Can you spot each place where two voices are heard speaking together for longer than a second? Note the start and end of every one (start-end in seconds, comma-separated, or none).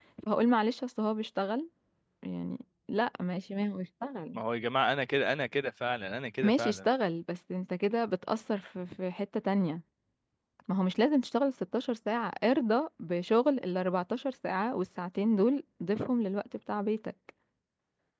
none